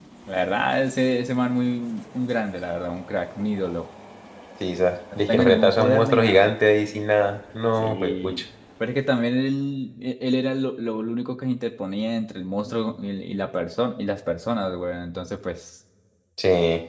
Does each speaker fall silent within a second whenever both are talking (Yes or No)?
No